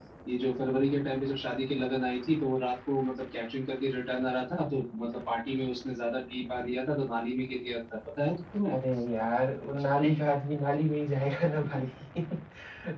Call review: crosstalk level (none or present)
none